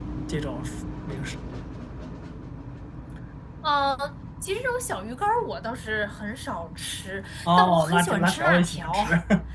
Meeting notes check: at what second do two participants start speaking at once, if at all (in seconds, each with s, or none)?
7.5 s